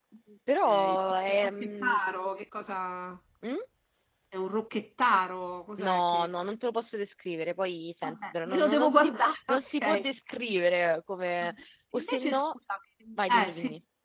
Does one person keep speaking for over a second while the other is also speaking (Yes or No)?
Yes